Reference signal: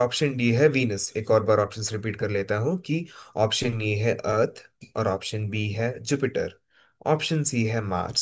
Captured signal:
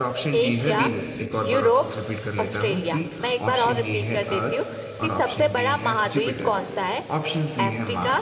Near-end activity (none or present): present